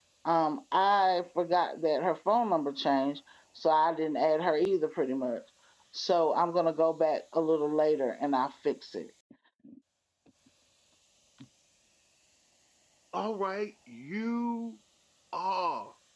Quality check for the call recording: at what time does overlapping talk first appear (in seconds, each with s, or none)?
none